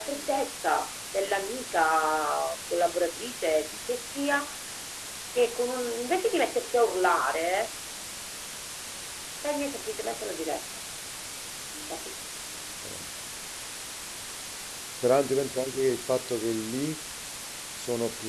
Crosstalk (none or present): none